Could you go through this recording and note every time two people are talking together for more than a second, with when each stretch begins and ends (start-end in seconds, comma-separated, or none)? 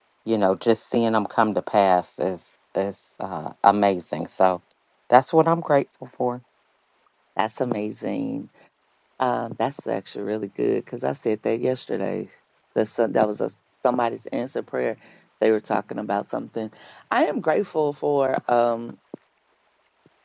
none